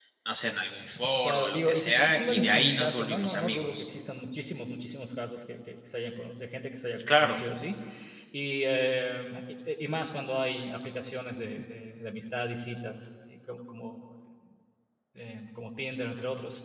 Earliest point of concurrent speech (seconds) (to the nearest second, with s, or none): 1 s